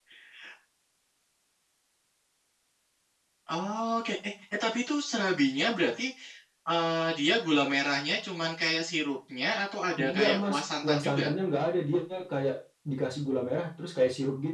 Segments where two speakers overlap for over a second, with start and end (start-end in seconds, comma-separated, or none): 10.0-11.2